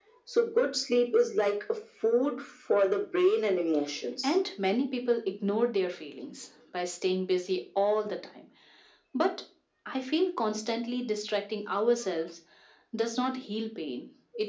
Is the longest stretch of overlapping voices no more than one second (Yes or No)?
Yes